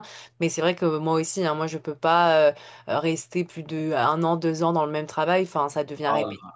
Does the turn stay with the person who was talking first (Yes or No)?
Yes